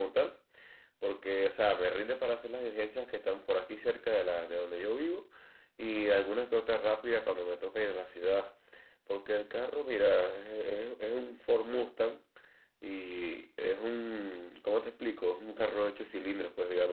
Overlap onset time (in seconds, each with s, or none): none